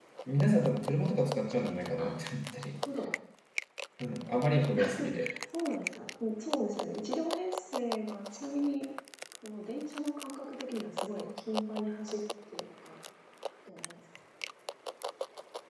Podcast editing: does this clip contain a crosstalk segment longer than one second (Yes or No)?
No